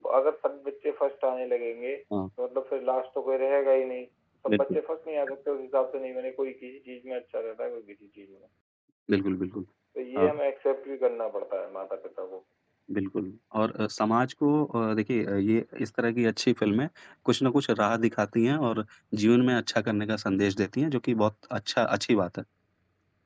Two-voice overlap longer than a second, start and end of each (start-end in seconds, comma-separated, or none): none